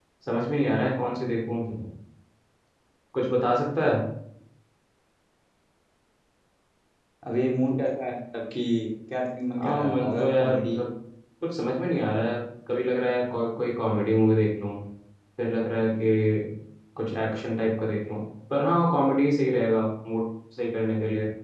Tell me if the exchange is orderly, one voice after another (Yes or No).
No